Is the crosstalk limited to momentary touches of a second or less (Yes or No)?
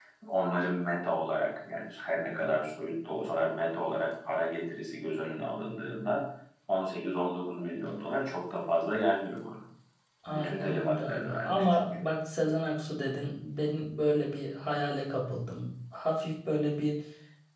No